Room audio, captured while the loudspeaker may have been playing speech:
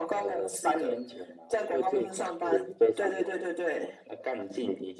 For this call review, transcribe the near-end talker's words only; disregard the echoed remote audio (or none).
none